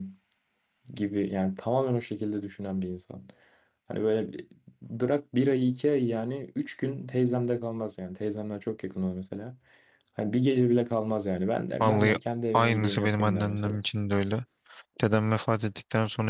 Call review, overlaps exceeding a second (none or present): present